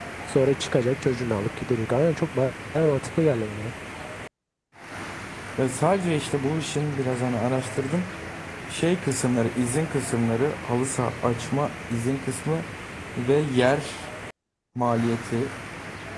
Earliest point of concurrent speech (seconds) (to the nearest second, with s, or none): none